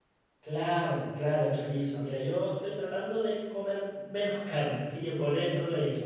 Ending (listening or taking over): listening